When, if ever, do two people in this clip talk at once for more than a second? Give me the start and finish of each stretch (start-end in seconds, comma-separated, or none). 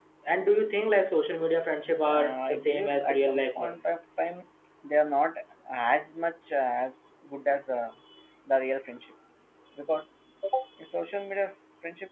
2.0-3.8